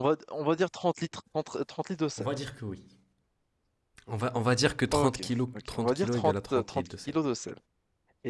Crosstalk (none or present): present